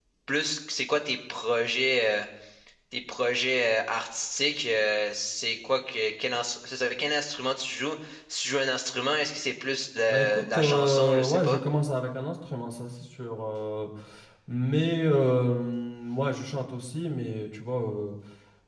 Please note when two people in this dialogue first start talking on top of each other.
10 s

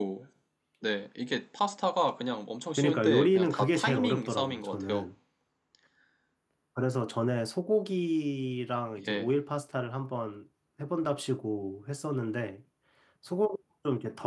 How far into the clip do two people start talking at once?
3 s

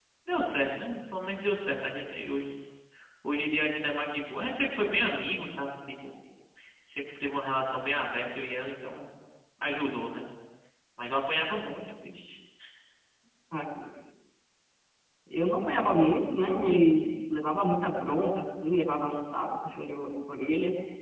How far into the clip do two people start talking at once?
none

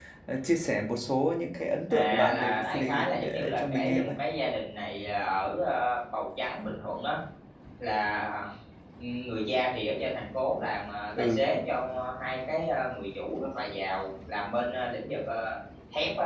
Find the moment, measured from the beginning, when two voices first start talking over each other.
2 s

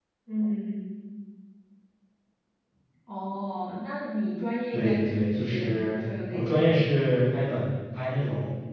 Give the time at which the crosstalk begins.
5 s

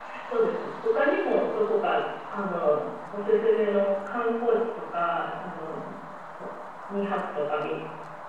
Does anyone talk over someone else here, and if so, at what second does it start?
none

